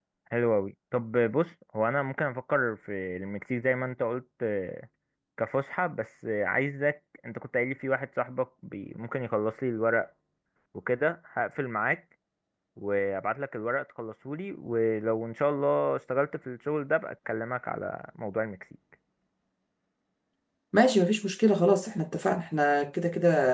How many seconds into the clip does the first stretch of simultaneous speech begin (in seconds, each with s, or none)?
none